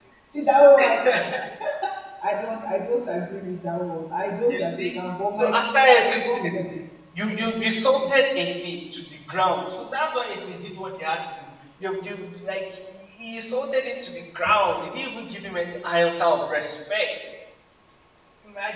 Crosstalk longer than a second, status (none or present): present